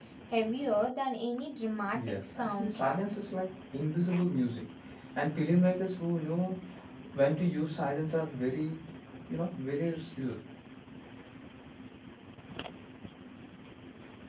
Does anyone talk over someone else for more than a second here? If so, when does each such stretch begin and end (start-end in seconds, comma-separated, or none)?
1.9-3.2